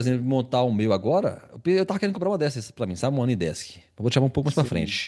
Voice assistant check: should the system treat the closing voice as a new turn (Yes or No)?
No